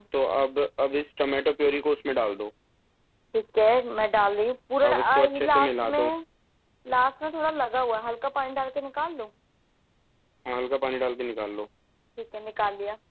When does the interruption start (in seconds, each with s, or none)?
4.8 s